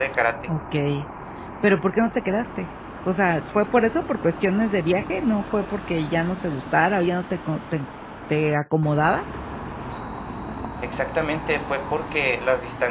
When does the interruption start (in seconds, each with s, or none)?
none